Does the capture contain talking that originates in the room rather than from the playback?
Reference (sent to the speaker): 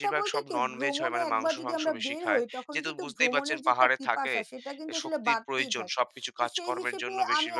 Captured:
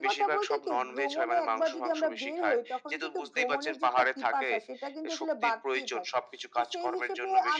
No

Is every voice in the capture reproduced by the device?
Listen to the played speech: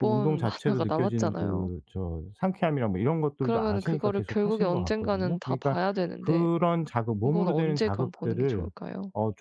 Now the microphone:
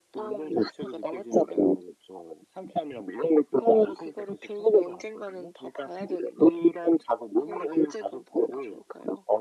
Yes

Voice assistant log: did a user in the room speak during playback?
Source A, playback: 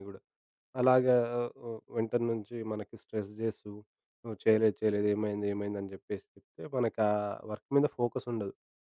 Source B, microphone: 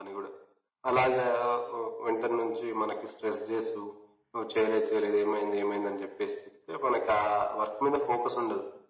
No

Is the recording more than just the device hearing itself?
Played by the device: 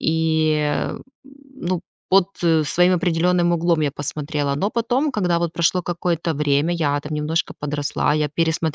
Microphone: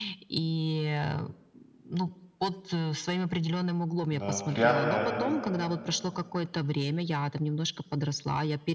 Yes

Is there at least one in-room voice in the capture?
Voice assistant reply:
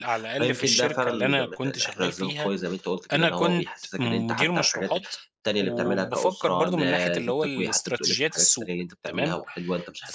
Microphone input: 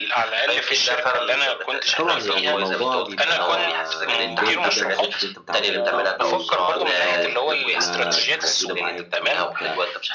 Yes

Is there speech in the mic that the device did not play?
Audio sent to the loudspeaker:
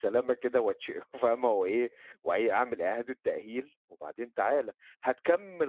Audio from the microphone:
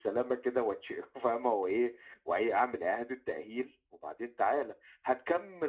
No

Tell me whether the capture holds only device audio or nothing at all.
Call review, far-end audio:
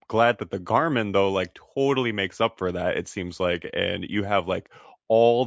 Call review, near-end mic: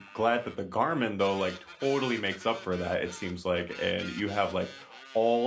Yes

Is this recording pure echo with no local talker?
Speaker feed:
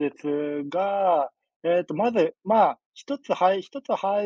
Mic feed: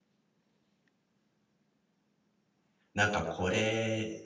No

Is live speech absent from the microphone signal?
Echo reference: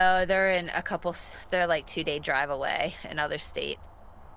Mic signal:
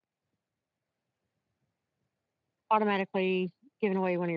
No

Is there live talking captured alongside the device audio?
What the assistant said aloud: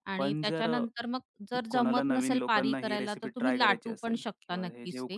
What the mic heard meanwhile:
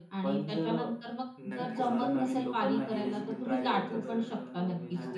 Yes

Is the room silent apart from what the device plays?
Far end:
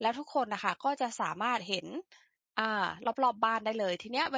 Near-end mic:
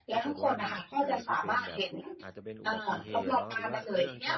No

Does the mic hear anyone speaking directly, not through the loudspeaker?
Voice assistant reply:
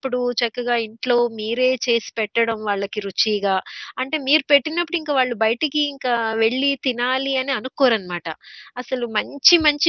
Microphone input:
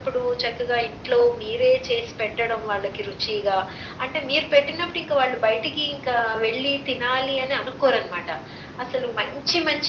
No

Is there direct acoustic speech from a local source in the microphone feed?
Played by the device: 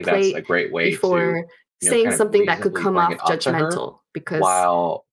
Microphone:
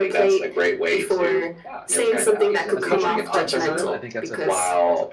Yes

